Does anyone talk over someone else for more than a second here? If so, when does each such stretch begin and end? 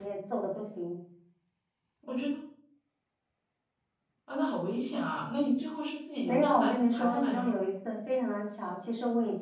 6.2-7.6

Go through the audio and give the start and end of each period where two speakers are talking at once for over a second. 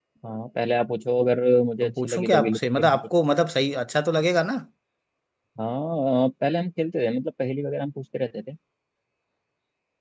1.8-3.1

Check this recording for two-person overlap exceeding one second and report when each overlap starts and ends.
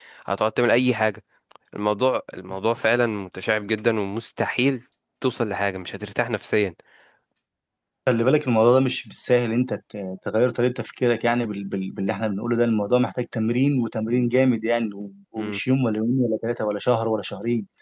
none

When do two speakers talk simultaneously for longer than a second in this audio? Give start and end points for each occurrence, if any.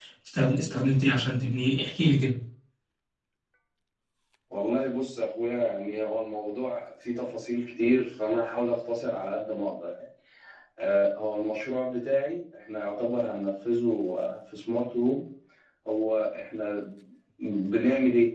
none

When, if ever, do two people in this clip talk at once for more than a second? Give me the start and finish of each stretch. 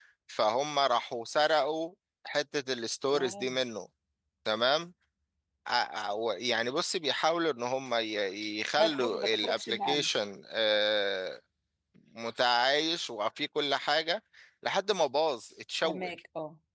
8.8-10.1

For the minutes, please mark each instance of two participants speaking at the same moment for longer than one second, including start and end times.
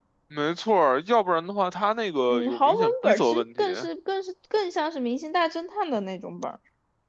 2.3-3.6

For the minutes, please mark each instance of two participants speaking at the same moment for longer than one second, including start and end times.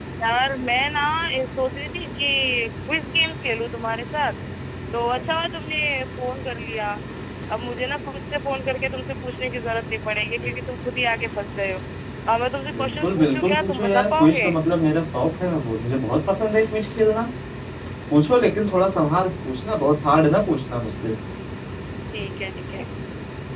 12.7-14.5

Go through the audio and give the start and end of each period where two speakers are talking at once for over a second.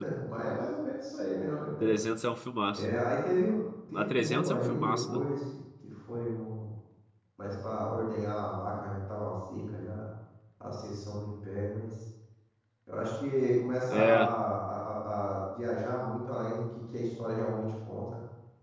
3.9-5.2

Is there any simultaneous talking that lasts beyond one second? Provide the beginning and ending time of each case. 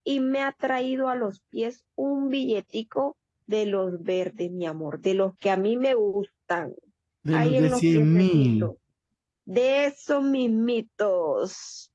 7.3-8.7

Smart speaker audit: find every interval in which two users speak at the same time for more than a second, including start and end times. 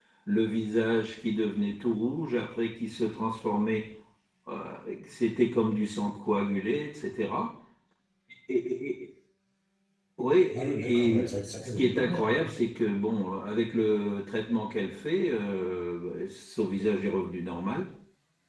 10.5-12.5

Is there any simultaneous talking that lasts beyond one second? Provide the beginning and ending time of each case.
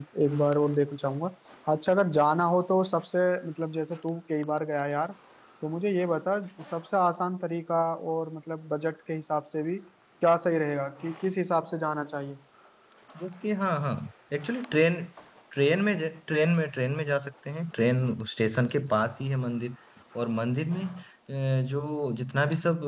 none

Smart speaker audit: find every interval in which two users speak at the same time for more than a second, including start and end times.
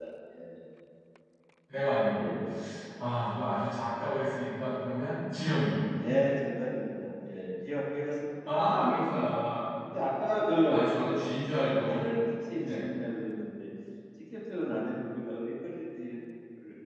none

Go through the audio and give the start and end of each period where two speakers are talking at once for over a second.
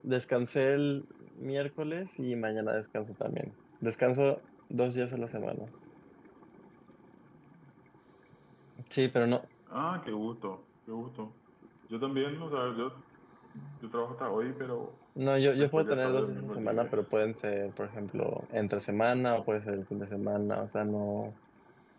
15.6-17.0

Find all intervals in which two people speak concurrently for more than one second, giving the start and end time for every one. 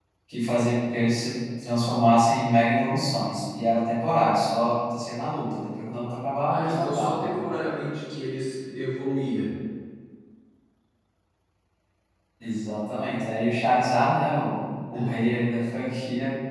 6.4-7.6

